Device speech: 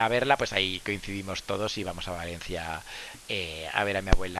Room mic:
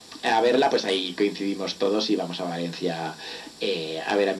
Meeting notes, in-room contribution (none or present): none